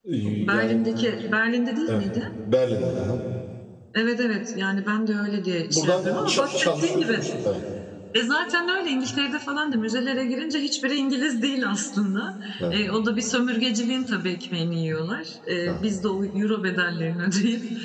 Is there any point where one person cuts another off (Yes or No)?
Yes